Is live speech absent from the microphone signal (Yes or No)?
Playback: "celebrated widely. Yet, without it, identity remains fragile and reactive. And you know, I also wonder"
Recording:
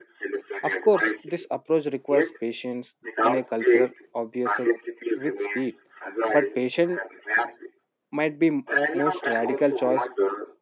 No